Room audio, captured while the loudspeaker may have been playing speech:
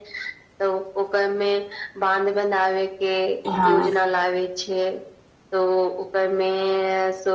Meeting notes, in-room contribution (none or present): present